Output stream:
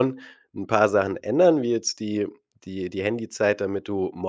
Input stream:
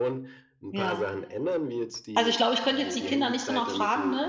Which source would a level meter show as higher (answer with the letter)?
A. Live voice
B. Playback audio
A